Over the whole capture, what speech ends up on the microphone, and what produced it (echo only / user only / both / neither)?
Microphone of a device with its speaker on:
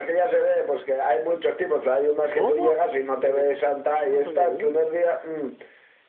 both